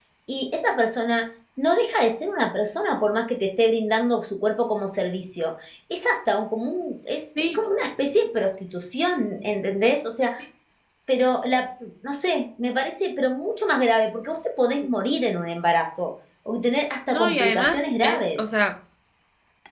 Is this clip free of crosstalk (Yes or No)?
No